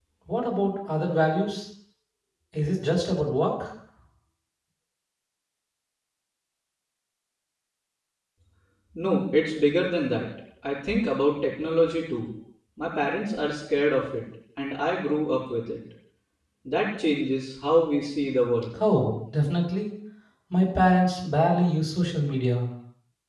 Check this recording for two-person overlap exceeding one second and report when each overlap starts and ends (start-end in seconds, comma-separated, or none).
none